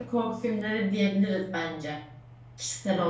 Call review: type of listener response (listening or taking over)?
taking over